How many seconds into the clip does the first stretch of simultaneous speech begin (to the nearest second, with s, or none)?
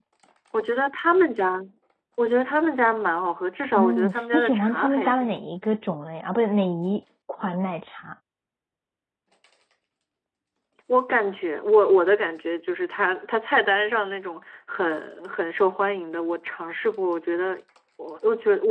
4 s